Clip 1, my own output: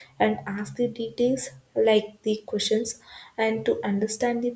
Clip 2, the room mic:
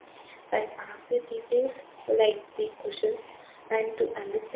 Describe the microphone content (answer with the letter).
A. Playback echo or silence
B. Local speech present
A